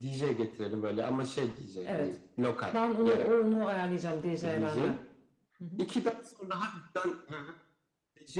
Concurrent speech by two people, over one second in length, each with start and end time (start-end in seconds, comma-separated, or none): none